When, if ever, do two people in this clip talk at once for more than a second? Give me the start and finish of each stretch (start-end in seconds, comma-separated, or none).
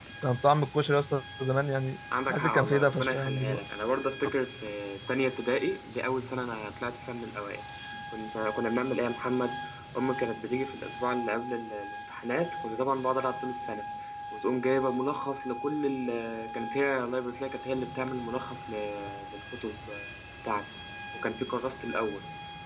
2.3-3.6